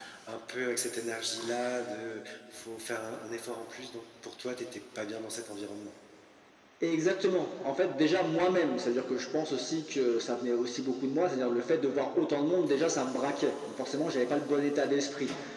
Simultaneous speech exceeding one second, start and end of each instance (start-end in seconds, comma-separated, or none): none